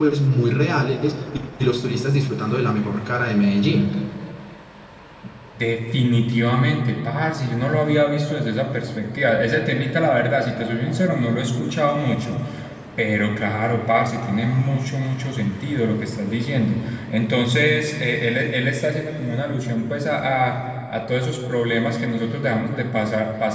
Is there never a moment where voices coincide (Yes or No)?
Yes